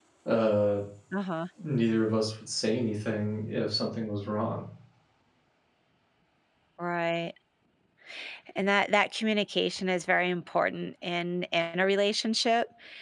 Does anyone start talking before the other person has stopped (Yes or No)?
No